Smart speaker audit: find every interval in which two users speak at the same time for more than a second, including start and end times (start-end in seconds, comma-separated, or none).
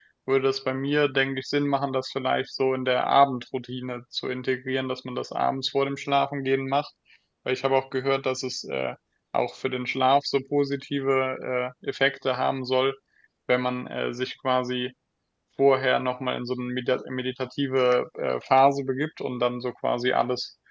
none